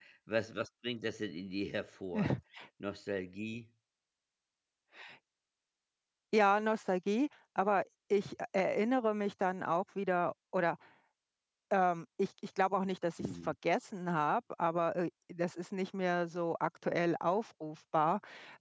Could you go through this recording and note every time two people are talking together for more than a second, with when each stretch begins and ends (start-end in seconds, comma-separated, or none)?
none